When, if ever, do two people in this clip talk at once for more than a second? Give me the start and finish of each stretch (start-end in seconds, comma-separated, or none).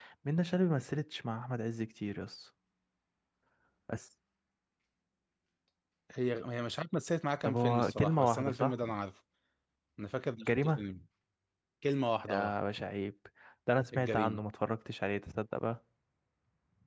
7.4-8.7